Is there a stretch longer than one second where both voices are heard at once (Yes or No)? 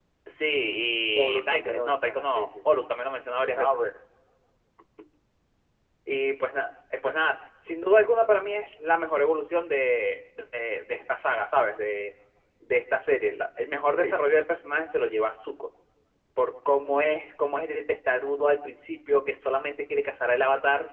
Yes